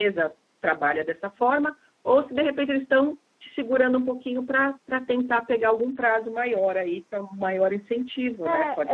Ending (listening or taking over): taking over